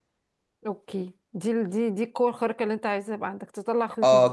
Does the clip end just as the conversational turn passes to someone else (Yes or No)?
Yes